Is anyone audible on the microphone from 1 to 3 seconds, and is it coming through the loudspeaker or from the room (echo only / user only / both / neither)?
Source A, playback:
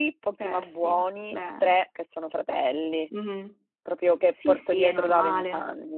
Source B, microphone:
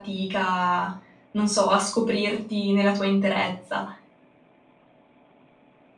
user only